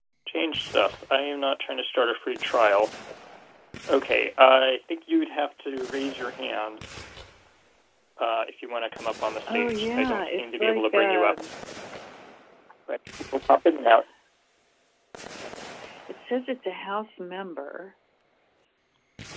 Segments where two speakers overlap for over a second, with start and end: 9.5-11.4

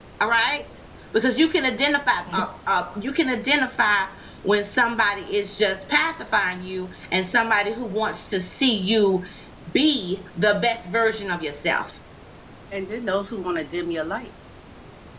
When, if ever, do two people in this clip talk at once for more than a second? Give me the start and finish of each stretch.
none

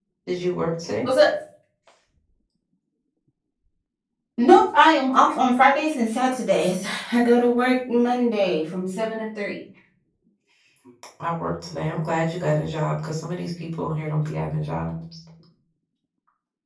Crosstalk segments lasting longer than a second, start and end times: none

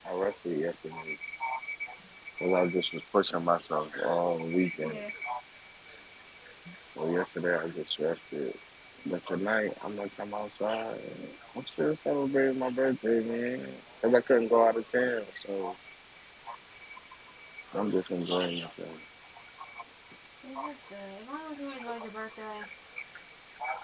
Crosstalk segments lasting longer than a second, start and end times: none

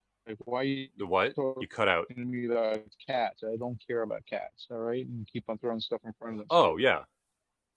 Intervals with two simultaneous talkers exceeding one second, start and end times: none

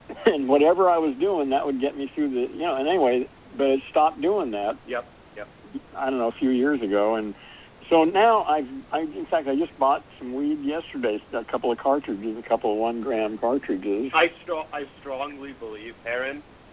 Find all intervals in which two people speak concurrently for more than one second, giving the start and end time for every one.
none

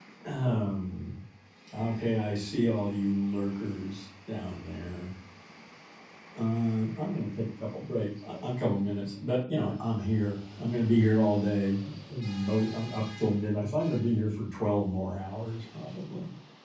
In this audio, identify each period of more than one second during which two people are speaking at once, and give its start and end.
none

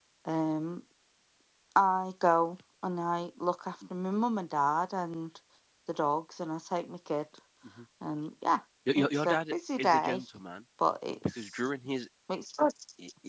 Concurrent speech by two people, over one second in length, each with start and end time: 9.0-10.2

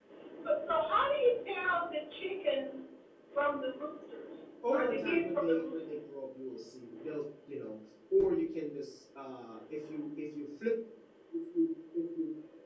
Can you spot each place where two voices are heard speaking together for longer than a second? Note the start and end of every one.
4.7-6.0

